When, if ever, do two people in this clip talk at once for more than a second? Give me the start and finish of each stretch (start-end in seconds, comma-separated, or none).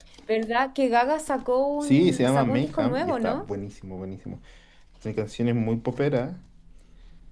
1.8-3.4